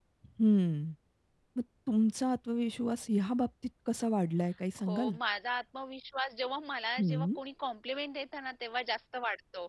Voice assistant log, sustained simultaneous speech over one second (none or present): none